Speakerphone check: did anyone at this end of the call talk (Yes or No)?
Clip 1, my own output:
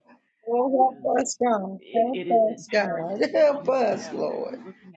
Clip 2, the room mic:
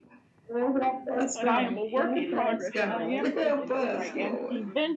Yes